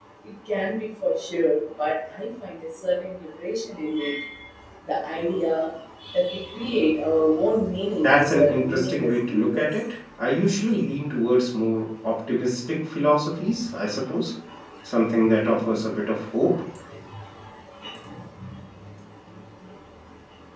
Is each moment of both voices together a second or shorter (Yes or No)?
No